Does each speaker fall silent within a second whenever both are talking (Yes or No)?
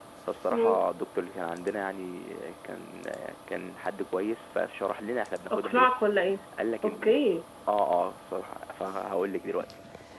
Yes